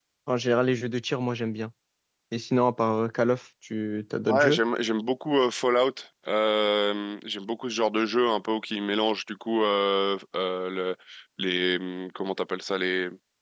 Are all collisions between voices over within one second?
Yes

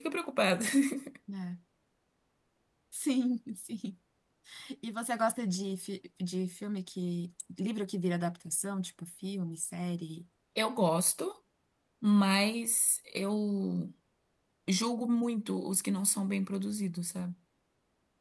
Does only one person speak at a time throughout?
Yes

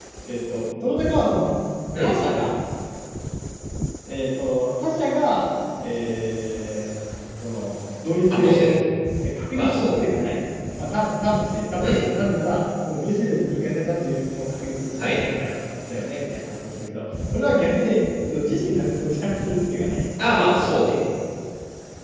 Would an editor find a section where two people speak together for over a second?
No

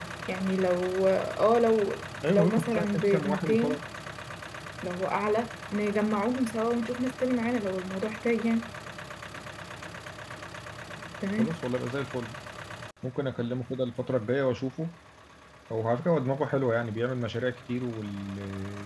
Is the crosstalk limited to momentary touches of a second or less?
No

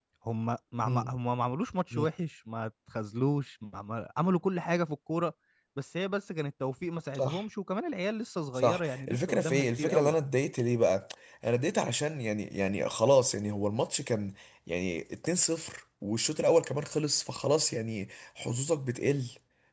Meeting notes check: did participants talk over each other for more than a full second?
Yes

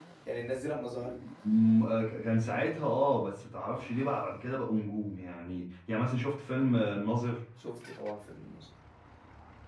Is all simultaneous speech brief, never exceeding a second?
Yes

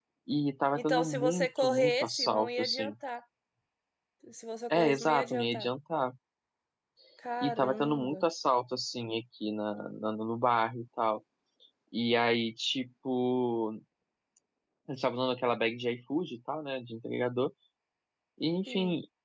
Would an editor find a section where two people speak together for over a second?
Yes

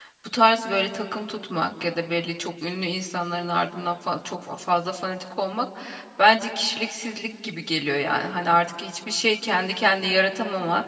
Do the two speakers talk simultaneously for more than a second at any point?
No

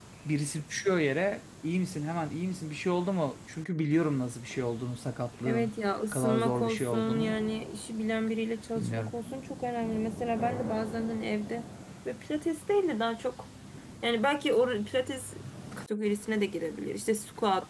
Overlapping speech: Yes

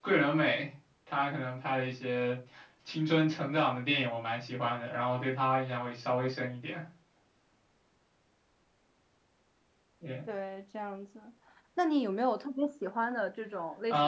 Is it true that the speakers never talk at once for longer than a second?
Yes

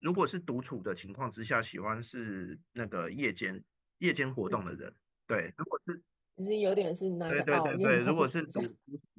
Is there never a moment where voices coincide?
No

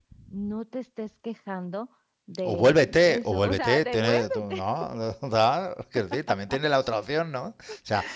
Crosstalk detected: Yes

